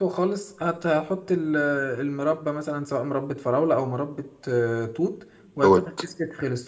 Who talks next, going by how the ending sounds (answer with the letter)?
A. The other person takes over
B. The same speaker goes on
B